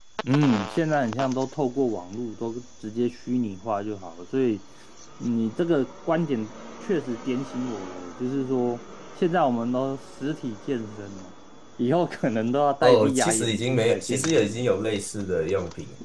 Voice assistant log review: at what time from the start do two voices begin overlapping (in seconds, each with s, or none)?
12.8 s